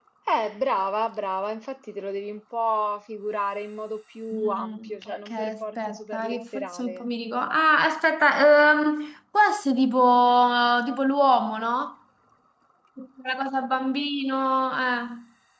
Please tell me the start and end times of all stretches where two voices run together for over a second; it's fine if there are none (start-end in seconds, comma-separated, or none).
4.3-7.0